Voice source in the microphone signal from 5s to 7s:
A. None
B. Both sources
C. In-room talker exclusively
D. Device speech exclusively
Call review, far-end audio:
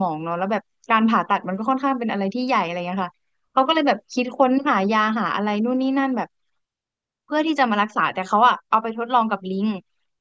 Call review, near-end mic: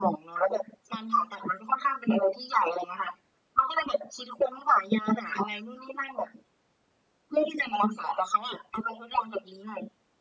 D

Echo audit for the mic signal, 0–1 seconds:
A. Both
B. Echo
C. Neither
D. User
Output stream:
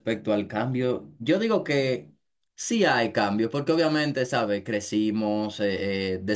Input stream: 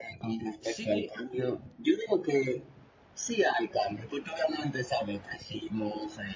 A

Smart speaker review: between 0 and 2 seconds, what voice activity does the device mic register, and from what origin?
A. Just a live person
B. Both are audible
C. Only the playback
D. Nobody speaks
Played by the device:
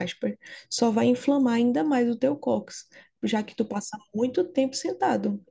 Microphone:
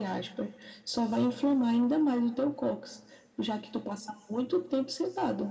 C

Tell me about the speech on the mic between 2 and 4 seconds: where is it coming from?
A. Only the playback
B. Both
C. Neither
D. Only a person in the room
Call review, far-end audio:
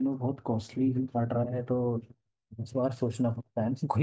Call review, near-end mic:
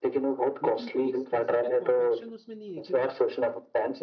B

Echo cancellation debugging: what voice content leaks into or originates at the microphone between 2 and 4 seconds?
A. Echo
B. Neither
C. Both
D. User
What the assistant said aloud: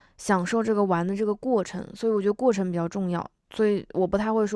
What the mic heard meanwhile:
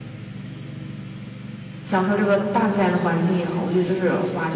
D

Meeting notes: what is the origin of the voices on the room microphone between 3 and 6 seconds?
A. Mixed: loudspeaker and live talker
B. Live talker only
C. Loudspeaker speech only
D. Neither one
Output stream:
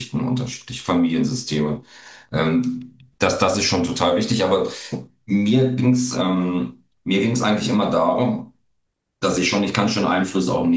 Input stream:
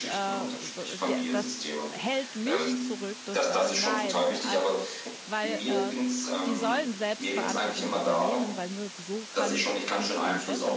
A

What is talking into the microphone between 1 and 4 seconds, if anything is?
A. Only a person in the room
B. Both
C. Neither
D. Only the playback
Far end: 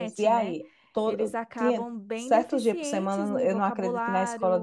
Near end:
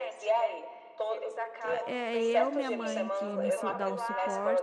B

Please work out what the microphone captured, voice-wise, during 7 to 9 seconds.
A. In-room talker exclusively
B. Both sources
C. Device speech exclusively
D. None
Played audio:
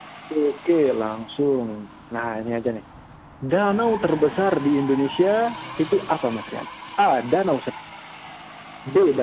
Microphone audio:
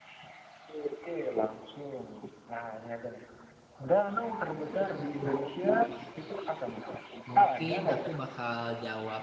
B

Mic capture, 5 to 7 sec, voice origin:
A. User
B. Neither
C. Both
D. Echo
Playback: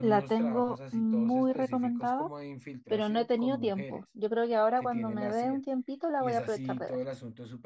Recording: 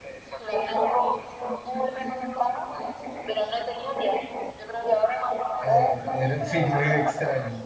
C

